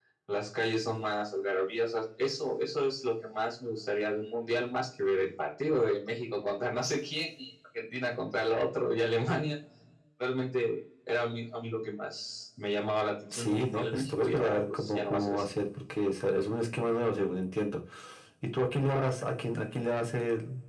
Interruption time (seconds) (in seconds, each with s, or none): 13.3 s